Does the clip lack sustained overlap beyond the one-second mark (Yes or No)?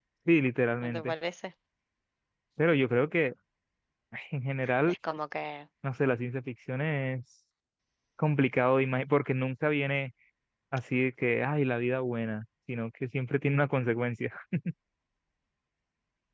Yes